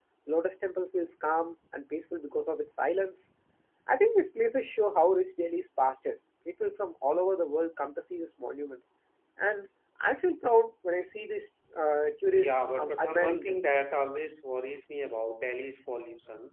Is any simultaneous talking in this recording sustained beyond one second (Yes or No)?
Yes